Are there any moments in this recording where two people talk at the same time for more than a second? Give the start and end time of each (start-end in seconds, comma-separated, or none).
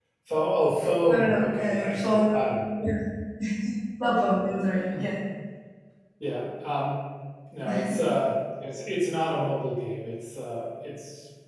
1.1-2.5